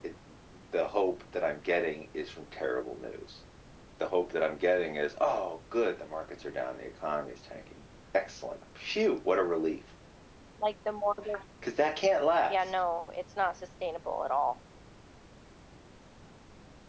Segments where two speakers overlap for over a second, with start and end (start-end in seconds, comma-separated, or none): none